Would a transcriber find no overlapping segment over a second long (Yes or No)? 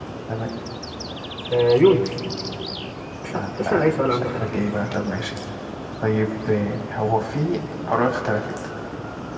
No